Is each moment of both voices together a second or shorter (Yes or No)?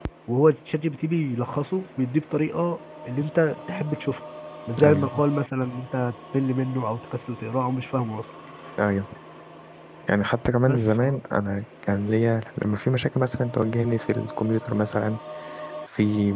Yes